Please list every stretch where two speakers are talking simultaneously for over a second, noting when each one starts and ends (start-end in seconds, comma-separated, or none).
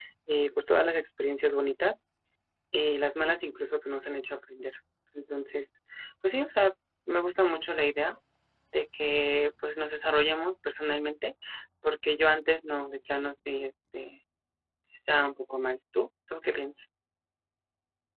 none